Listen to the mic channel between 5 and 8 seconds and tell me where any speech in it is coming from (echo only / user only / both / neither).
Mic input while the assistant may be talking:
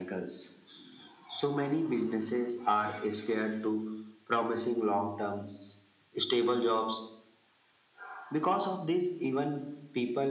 echo only